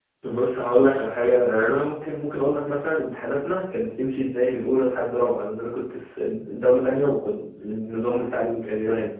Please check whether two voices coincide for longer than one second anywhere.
No

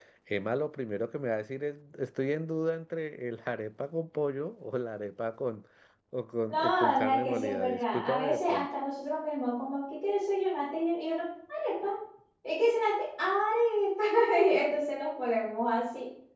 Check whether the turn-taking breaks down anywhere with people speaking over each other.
Yes, from 6.5 s

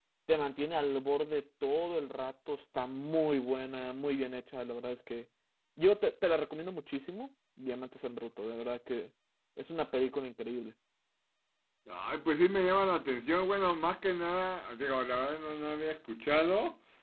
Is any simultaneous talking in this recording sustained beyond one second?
No

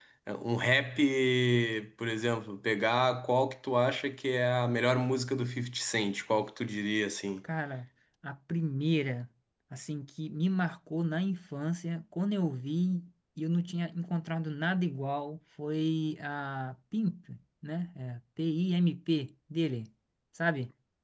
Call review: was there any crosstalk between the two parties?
No

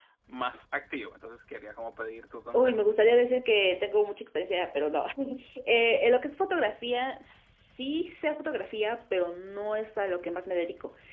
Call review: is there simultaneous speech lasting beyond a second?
No

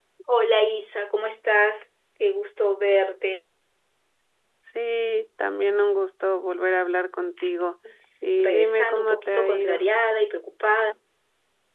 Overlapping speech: Yes, from 8.4 s

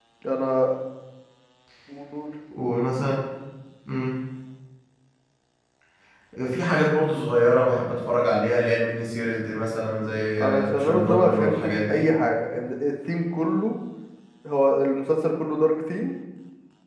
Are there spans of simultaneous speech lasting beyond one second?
Yes, from 10.4 s

